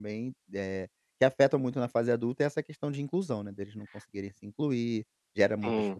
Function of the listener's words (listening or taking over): listening